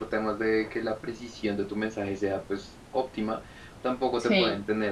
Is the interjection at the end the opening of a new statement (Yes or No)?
No